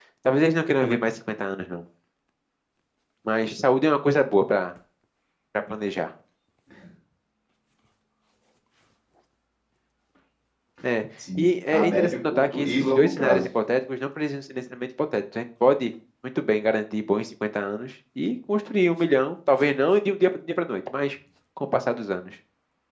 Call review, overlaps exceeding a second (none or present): present